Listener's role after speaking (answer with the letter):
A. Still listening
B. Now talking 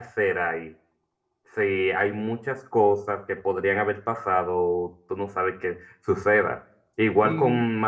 A